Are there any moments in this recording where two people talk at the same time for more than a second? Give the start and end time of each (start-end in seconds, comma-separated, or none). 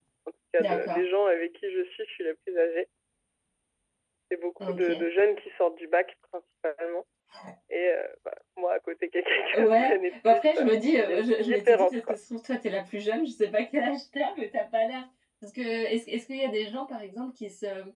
9.6-12.2